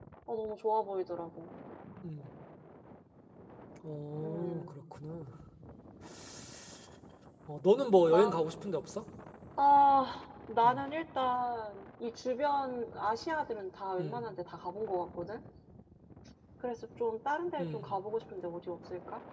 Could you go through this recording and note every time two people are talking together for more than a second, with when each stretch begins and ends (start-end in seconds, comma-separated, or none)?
none